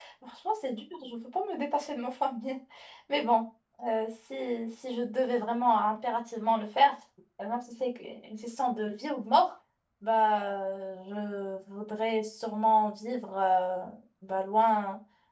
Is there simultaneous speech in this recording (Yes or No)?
No